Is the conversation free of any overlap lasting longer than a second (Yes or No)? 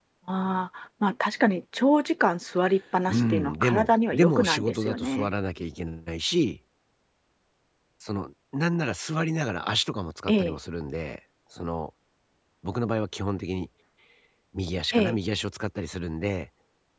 No